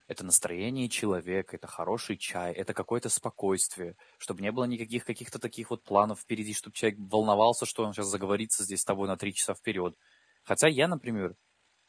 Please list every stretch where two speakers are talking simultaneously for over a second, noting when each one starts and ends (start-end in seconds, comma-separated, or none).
none